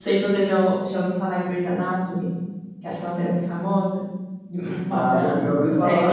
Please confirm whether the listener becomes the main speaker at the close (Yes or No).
Yes